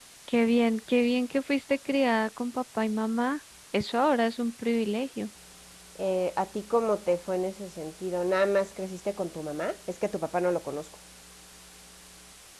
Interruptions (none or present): none